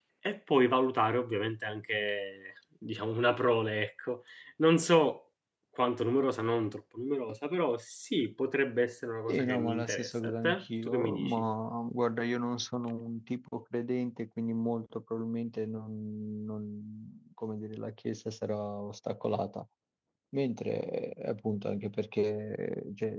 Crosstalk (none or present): present